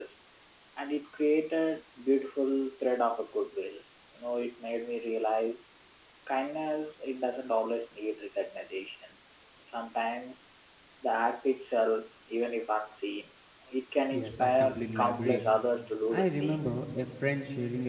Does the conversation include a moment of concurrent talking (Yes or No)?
Yes